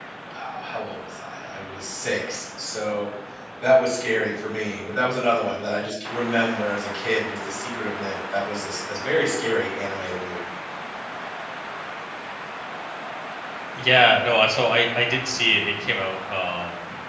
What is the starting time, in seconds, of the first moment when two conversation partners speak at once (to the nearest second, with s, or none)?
none